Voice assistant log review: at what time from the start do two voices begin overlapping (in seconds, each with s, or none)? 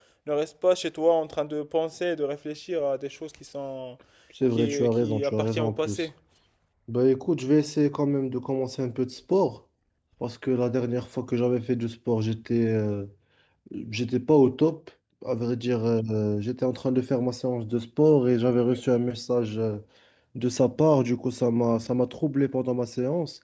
4.6 s